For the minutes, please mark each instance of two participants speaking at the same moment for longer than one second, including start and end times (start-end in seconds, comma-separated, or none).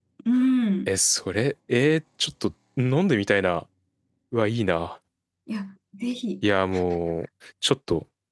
none